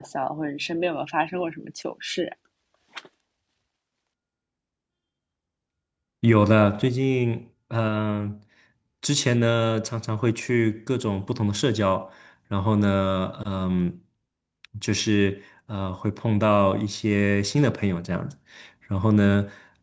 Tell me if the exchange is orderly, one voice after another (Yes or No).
Yes